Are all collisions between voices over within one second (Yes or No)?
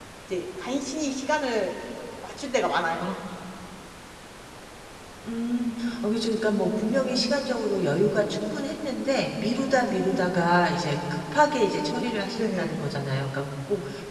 Yes